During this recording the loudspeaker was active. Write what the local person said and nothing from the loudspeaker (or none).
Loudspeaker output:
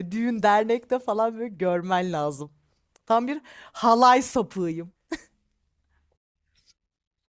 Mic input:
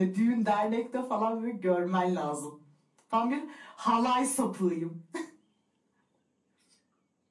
none